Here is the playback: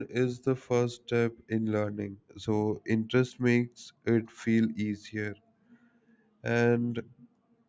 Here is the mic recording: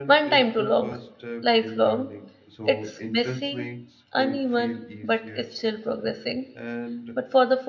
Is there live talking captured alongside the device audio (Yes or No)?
Yes